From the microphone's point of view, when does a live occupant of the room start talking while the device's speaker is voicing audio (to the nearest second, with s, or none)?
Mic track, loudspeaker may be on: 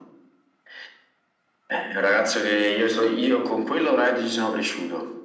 none